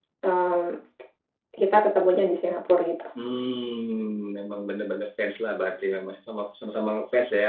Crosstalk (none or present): none